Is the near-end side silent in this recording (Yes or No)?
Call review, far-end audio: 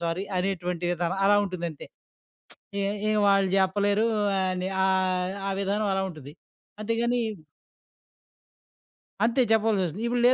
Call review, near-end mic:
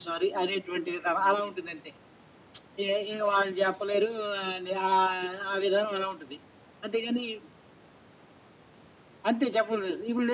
Yes